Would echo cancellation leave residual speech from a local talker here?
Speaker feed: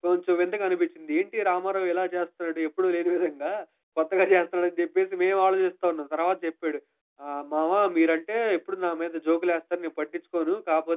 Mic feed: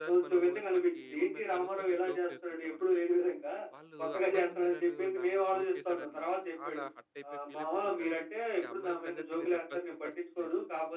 Yes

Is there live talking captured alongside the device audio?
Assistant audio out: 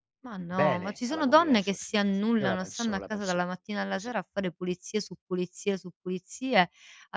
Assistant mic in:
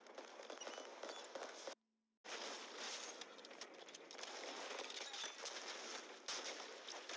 No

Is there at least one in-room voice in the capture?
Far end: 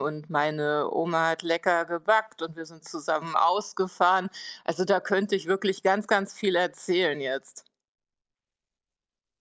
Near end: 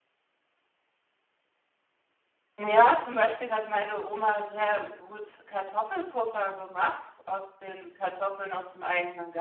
Yes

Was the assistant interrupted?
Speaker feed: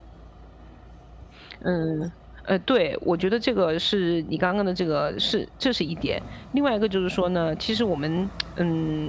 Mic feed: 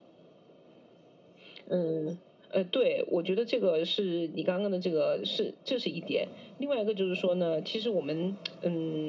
No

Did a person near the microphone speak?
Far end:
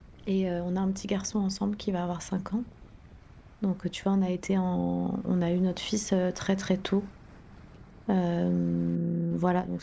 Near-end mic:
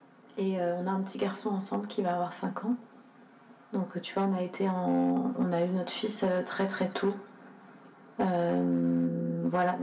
No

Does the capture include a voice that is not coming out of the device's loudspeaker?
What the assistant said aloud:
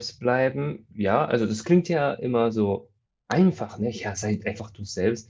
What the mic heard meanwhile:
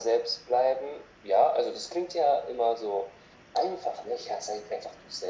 No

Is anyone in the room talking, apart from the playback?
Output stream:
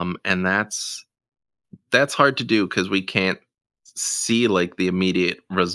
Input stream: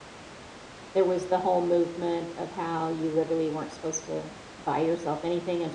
Yes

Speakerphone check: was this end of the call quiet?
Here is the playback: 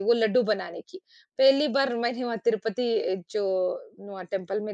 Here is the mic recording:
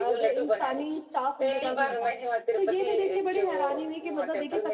No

